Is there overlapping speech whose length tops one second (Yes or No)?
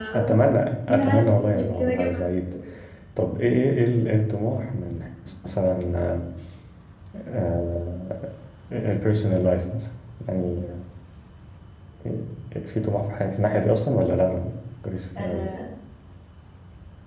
Yes